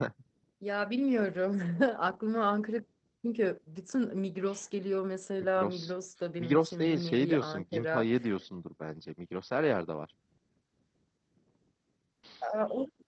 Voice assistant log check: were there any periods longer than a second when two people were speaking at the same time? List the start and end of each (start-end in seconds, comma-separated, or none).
6.4-8.1